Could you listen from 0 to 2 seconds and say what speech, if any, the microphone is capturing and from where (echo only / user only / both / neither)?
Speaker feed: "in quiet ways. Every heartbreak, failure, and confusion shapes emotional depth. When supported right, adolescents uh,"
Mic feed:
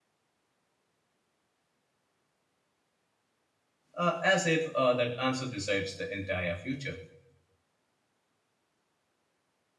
neither